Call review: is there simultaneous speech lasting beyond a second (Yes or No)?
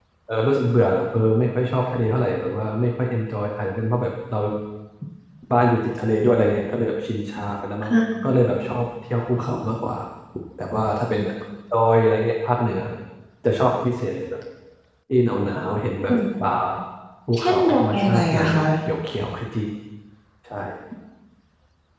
Yes